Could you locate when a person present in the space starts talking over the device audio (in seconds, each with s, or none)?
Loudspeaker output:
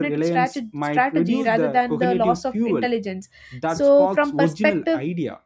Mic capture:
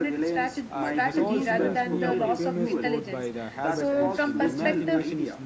0.7 s